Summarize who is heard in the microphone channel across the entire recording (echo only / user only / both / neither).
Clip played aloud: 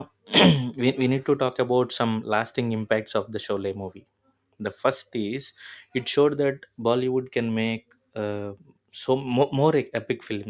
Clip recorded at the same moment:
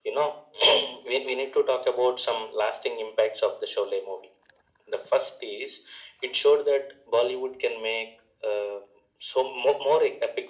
echo only